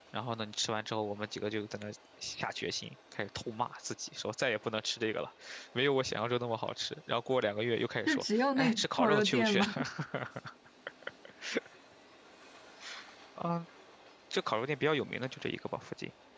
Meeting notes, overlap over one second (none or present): present